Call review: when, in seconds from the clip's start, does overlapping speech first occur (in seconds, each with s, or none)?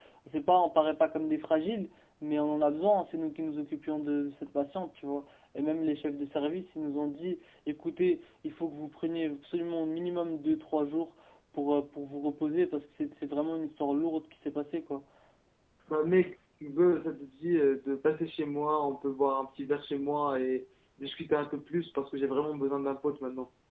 none